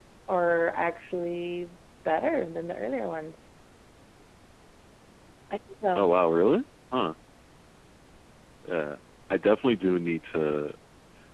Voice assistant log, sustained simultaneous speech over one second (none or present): none